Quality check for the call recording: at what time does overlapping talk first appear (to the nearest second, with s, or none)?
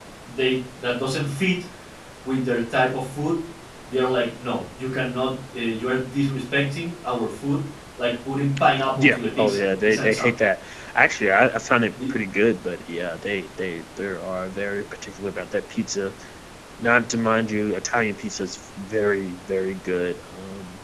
9 s